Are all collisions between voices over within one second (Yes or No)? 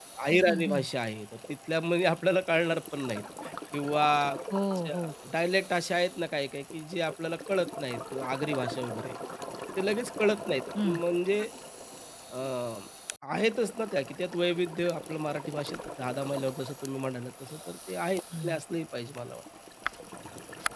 Yes